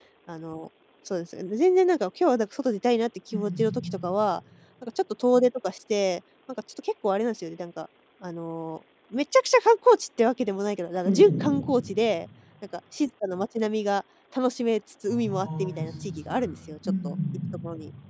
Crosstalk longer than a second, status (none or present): present